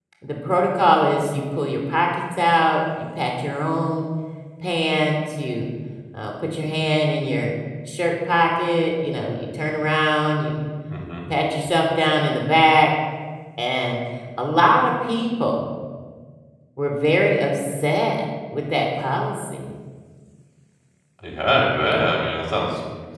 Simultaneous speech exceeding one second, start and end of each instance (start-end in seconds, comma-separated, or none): none